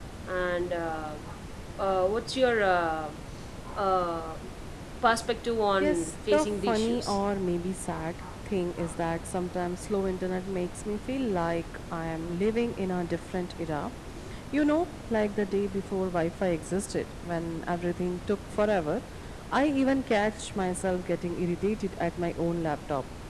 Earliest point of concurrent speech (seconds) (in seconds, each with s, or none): 5.8 s